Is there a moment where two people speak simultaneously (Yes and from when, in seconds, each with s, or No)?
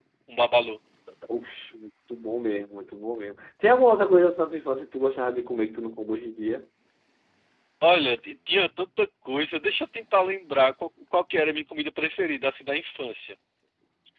No